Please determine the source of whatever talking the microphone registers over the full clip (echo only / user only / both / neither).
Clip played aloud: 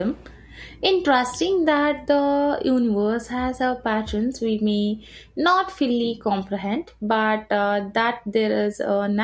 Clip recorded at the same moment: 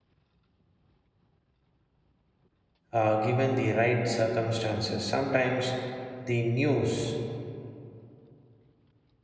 user only